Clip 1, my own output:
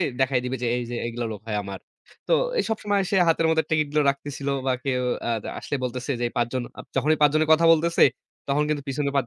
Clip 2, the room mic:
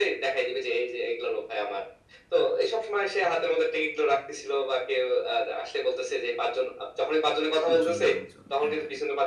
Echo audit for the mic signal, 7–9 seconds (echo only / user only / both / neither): both